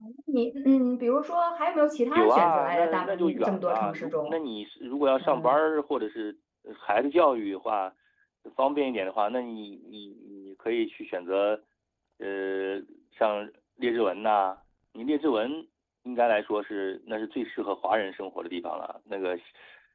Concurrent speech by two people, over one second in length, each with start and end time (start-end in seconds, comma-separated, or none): 2.1-4.4